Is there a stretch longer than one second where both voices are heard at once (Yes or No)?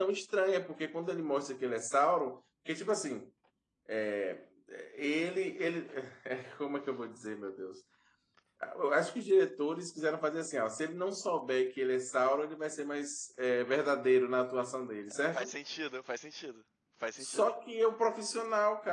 No